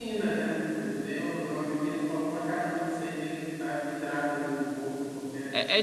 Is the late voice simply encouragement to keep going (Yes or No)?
No